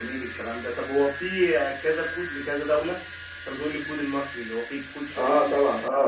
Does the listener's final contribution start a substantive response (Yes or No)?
Yes